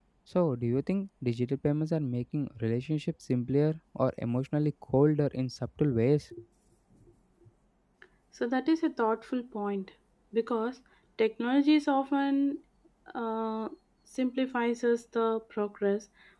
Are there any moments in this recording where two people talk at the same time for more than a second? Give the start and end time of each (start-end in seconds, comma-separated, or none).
none